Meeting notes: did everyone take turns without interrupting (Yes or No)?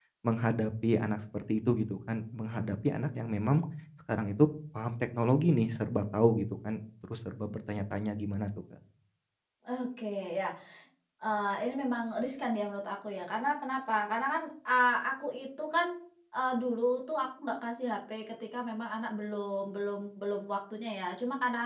Yes